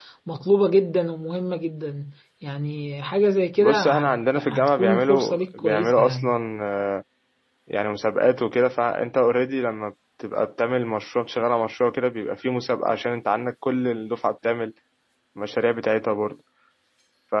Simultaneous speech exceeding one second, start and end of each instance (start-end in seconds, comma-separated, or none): 3.6-6.2